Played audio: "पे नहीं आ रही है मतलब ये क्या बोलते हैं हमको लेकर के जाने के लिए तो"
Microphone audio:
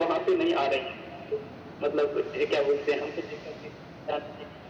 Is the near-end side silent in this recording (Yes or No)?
Yes